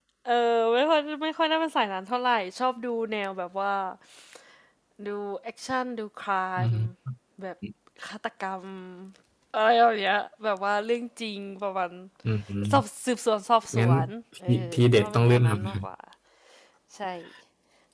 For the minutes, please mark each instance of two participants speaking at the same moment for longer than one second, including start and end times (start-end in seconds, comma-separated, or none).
14.5-15.9